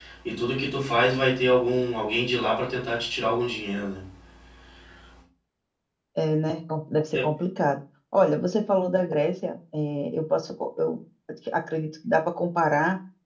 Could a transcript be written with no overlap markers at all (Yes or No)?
Yes